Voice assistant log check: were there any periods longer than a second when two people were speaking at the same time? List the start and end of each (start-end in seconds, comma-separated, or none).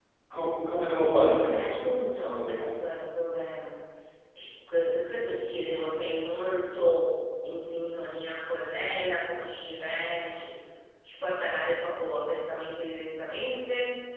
1.2-2.8